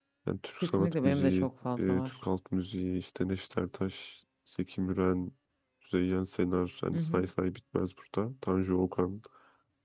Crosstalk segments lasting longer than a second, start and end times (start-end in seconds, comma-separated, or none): 0.6-2.1